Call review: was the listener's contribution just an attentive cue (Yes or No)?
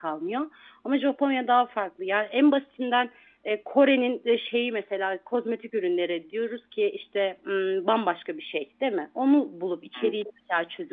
Yes